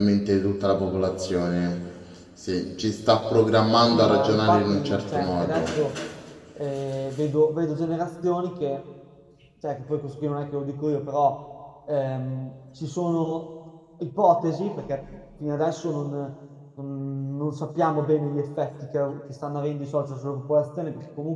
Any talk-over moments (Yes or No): Yes